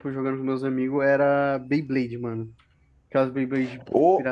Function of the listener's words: taking over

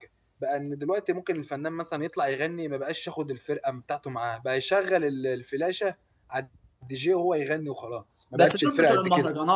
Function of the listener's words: taking over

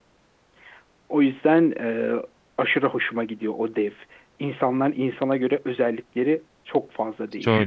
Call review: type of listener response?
taking over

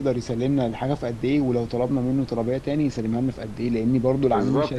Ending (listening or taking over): taking over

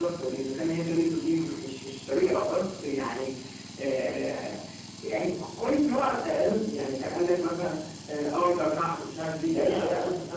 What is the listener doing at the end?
taking over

